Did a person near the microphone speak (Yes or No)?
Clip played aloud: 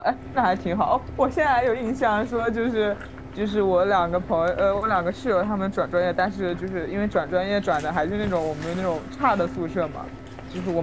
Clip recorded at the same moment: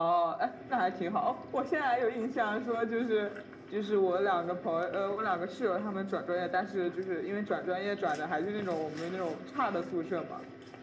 No